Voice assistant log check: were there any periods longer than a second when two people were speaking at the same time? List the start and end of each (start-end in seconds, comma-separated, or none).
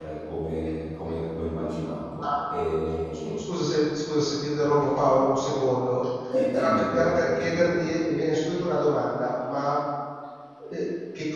6.2-7.9